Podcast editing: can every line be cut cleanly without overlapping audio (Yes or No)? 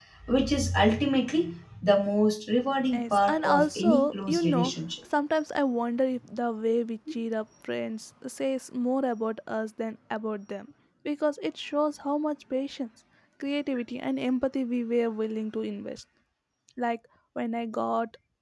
No